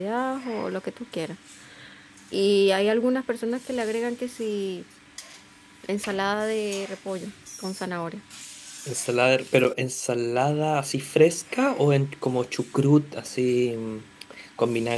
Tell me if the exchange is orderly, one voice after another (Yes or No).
Yes